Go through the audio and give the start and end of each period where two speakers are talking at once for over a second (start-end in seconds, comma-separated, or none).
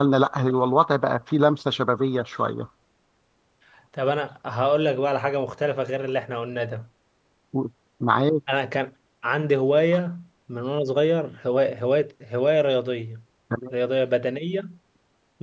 none